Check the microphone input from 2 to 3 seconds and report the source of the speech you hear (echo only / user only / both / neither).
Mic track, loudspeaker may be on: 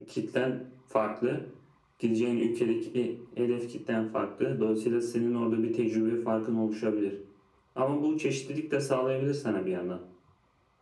echo only